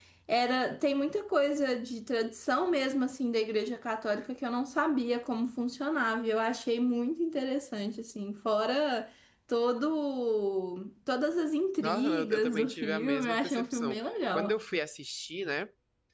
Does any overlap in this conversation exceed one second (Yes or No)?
Yes